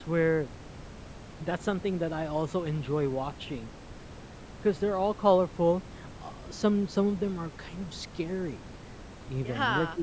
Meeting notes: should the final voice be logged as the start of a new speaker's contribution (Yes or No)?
No